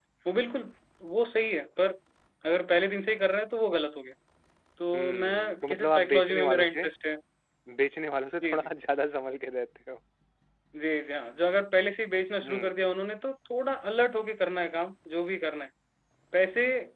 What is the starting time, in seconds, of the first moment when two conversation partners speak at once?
4.9 s

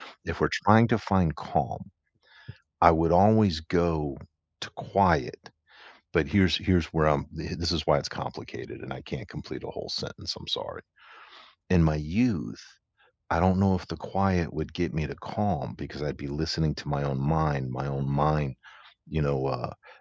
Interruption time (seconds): none

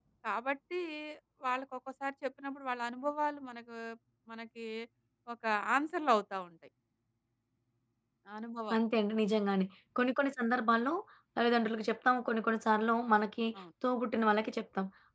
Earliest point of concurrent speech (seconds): none

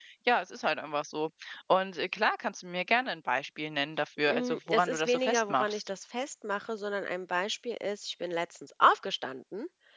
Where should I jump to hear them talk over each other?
4.3 s

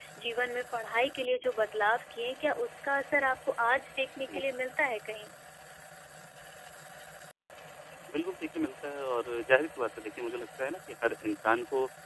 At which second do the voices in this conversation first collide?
none

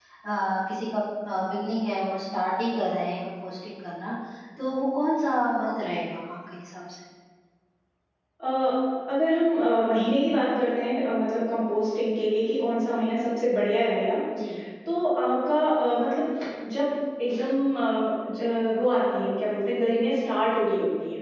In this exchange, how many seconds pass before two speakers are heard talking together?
none

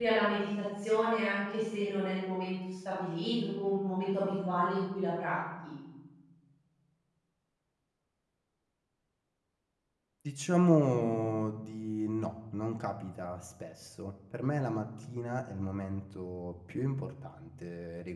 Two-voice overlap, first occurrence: none

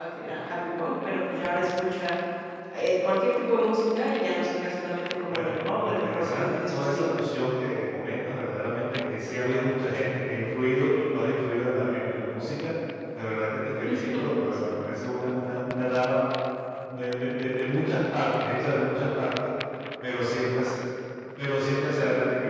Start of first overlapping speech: 5.3 s

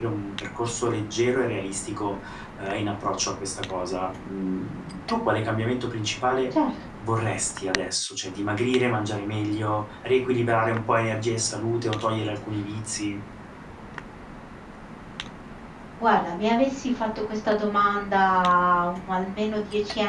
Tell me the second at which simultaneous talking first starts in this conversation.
none

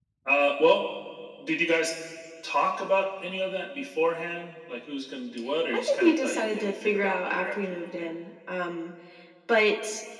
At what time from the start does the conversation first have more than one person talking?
5.7 s

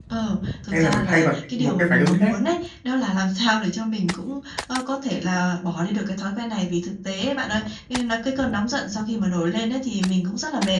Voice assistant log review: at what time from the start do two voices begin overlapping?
0.7 s

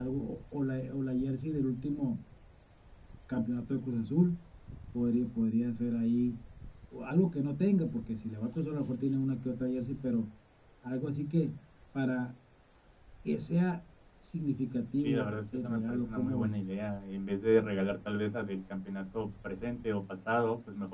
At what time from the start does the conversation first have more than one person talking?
15.0 s

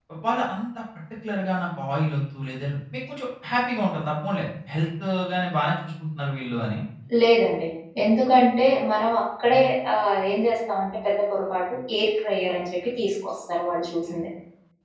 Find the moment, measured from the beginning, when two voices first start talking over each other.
none

